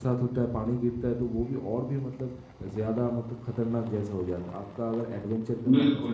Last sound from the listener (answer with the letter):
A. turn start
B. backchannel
B